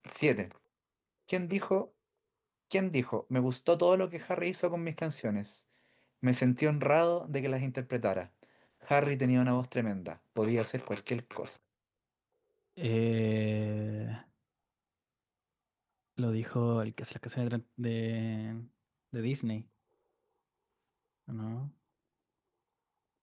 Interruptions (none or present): none